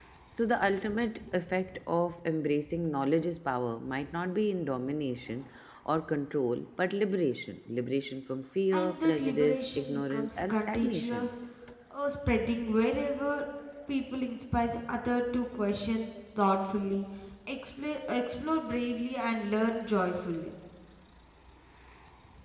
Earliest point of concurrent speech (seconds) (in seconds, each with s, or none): 8.7 s